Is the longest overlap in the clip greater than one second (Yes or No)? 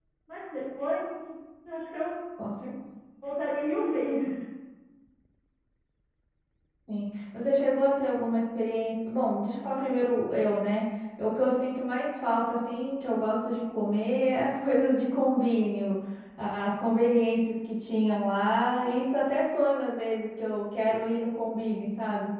No